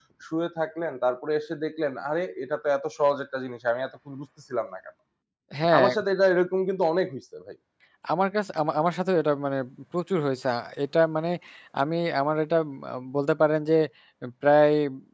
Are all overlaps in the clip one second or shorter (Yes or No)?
Yes